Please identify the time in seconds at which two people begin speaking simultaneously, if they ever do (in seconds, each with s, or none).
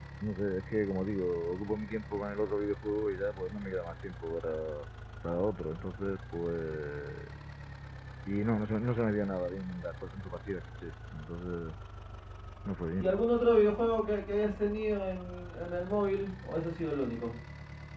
none